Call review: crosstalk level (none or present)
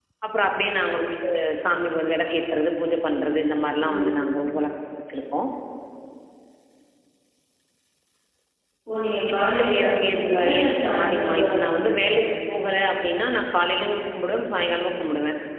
present